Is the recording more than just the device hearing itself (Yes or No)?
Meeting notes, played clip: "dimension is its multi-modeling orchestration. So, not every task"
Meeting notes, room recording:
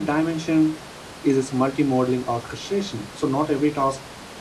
No